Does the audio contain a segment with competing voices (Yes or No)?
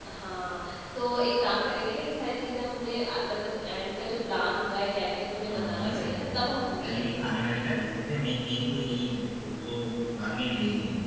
Yes